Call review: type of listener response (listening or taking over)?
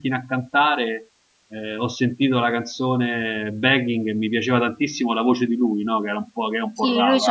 taking over